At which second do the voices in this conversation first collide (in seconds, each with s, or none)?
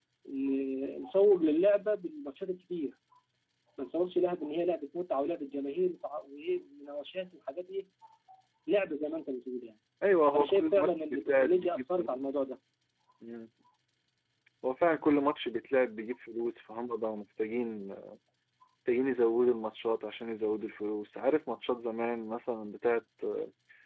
10.3 s